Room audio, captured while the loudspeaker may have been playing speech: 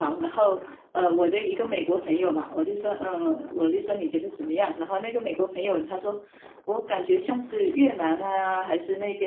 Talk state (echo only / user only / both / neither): echo only